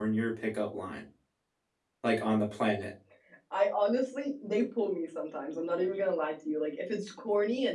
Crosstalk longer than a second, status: none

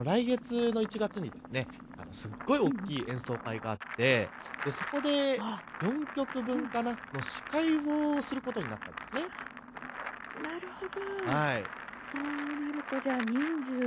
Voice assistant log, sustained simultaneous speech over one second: none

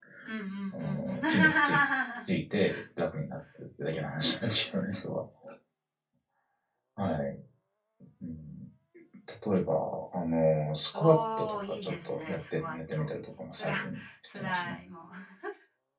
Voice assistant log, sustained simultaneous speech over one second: present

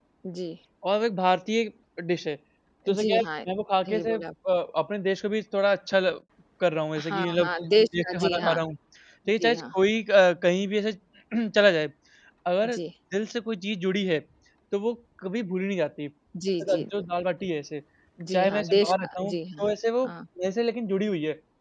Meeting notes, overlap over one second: present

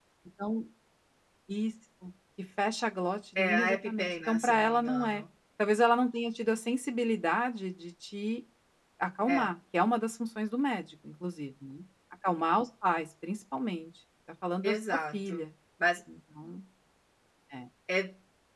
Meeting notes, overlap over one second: present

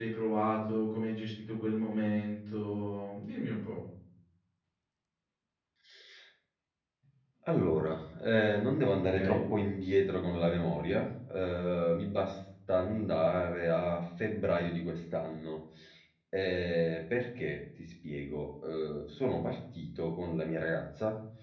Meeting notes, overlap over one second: none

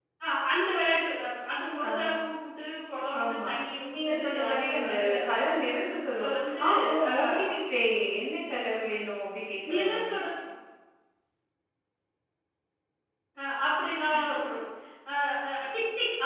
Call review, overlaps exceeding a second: present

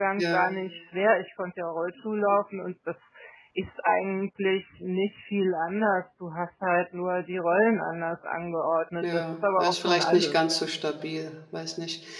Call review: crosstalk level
present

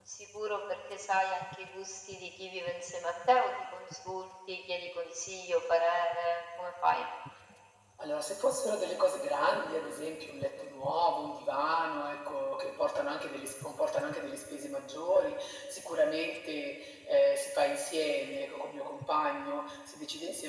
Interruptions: none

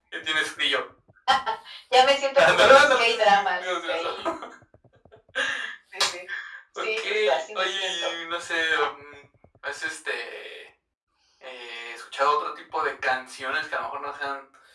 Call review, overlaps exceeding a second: present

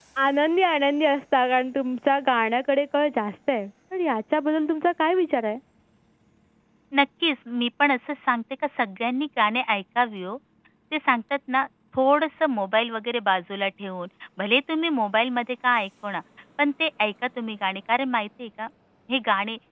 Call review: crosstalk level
none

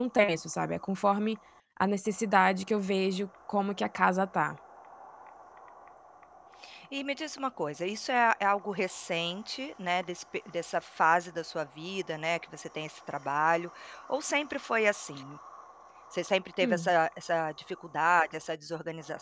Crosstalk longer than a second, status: none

